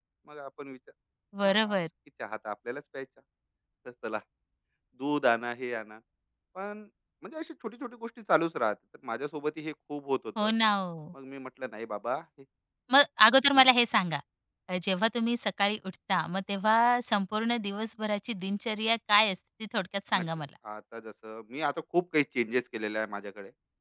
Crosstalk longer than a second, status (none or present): none